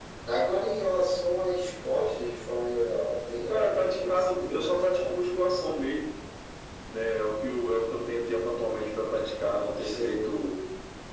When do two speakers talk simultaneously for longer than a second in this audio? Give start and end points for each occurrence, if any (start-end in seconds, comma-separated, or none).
3.5-5.3